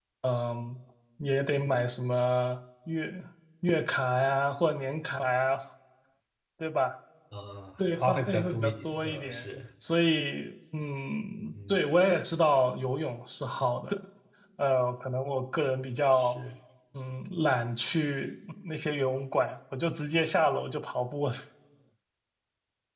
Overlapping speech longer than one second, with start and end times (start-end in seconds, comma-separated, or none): 8.0-9.4